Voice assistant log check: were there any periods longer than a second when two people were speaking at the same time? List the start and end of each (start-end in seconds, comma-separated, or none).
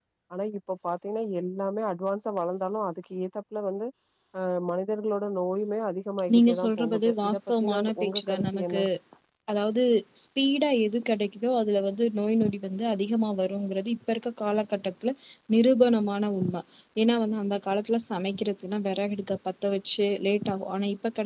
6.3-8.8